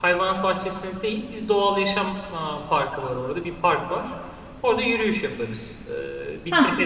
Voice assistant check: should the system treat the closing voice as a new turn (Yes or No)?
No